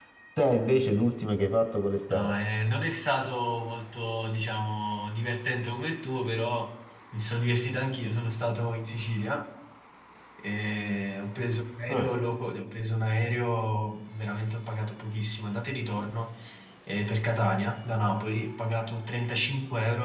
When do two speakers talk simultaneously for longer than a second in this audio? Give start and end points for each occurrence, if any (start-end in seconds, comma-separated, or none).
none